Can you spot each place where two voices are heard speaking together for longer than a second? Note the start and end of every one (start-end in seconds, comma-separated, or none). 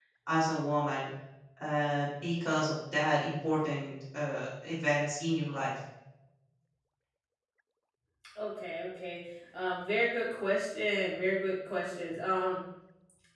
none